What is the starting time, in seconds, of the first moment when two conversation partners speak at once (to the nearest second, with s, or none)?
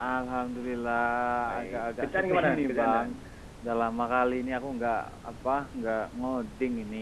2 s